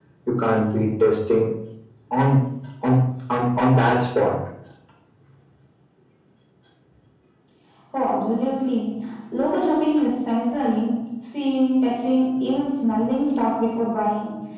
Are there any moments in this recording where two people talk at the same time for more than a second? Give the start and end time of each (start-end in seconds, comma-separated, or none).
none